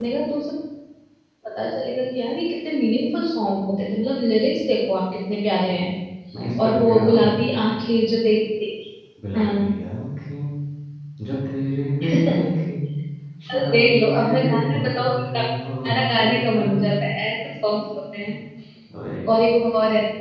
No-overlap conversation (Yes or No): No